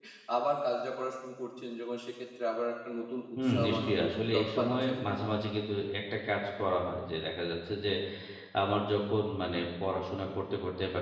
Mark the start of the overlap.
3.4 s

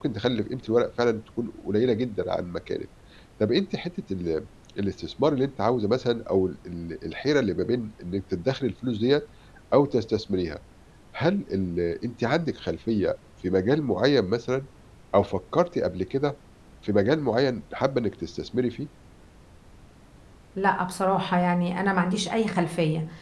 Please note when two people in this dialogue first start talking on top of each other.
none

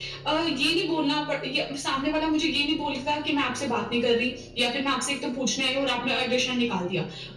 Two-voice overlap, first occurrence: none

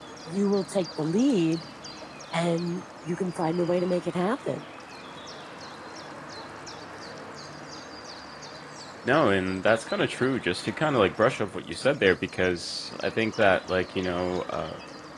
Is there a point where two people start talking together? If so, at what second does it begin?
none

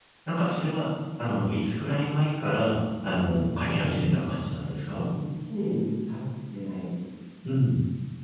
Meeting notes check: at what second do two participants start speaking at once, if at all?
3.0 s

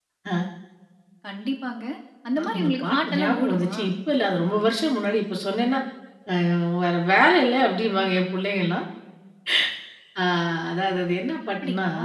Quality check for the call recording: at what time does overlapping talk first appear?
2.4 s

